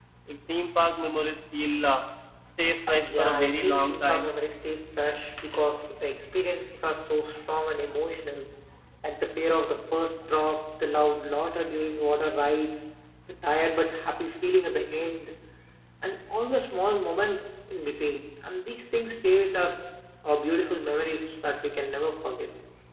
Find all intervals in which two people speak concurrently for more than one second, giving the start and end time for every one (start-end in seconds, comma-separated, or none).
3.1-4.3